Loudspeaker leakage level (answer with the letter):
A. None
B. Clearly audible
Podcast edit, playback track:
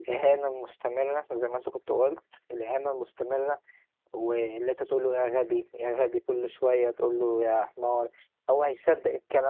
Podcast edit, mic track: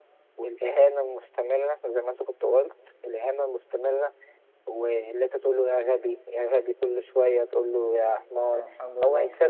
B